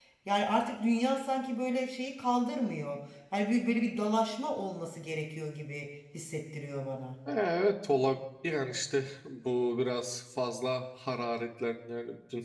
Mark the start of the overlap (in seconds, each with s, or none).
none